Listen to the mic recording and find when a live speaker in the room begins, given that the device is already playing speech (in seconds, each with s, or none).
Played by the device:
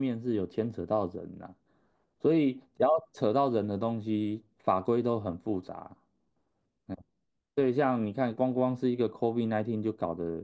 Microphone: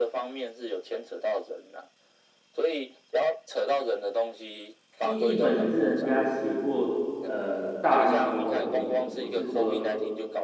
5.0 s